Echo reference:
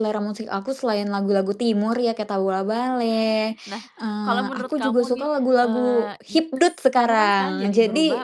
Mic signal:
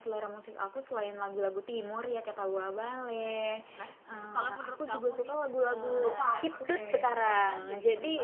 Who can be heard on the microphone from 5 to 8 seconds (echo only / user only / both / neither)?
both